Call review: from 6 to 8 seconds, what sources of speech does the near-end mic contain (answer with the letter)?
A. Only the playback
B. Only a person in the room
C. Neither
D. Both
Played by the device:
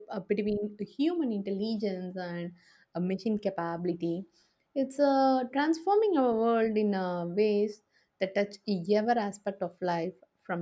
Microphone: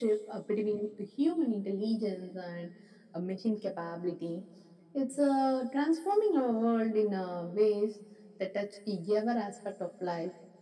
A